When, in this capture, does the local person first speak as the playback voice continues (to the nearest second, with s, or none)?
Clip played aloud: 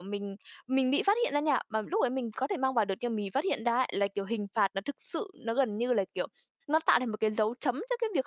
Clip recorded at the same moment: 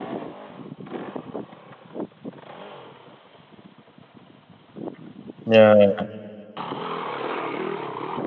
5 s